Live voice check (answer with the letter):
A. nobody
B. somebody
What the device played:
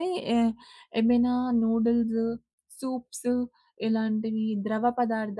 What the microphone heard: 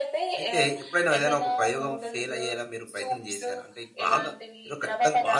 B